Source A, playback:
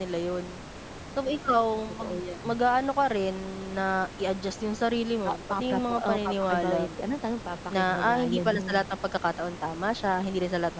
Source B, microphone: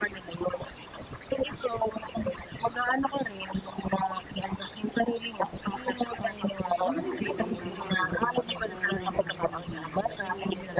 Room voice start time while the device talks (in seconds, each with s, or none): 6.8 s